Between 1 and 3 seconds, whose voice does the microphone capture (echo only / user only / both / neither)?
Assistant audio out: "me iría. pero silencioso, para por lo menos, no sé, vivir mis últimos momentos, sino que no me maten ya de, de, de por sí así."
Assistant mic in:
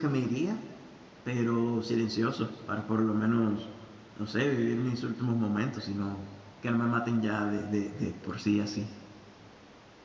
echo only